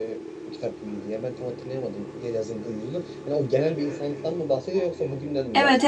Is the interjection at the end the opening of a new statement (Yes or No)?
Yes